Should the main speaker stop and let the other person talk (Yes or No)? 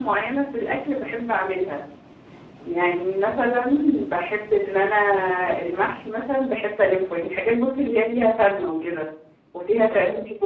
No